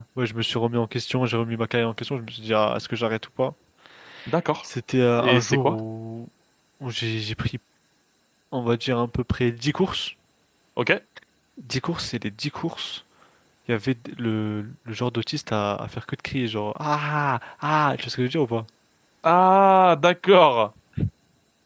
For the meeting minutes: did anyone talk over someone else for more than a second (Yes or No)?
No